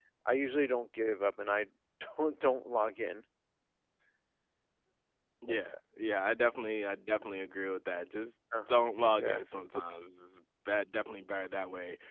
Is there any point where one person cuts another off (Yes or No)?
Yes